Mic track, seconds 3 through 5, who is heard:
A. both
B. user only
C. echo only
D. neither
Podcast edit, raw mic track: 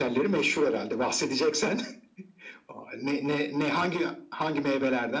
C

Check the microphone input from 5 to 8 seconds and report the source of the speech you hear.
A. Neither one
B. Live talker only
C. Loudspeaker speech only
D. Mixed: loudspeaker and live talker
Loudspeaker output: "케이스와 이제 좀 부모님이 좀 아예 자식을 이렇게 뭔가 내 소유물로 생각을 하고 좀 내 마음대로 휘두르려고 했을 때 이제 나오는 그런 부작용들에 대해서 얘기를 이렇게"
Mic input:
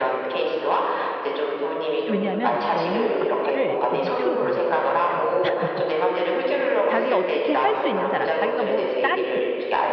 D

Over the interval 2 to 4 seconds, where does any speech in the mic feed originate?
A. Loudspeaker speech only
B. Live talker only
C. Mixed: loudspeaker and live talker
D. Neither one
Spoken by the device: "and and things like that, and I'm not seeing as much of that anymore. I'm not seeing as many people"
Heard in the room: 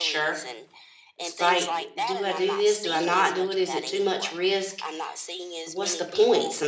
C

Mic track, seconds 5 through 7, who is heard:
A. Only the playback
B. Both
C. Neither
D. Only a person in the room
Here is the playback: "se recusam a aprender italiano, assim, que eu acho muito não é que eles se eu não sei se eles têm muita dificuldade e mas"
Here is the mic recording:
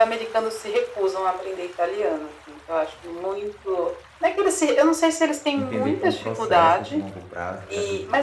B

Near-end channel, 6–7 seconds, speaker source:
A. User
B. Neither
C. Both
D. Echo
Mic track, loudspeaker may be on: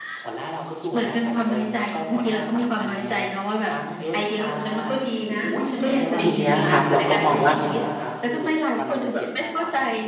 C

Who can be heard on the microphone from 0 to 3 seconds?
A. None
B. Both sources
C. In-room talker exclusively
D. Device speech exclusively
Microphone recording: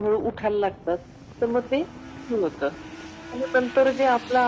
D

